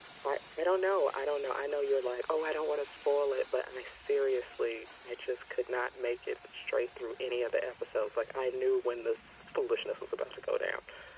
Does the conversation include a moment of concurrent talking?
No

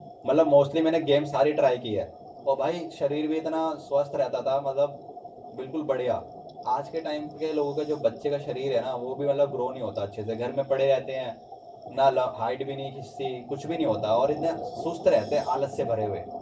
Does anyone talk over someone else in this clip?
No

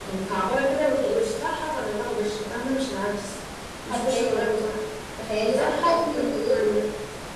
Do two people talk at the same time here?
Yes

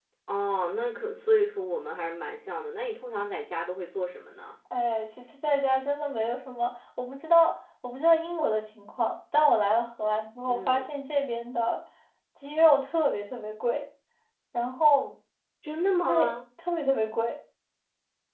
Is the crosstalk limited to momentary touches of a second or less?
Yes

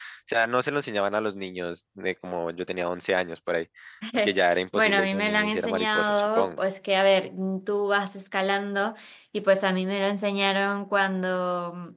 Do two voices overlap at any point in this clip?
Yes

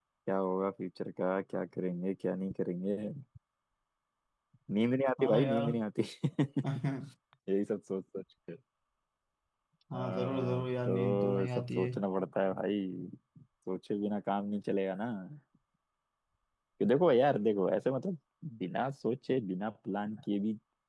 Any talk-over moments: Yes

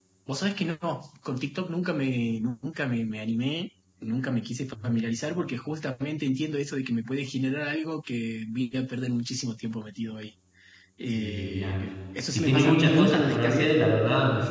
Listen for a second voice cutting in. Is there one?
Yes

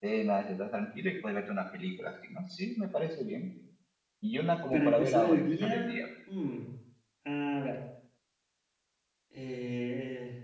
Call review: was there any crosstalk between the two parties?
Yes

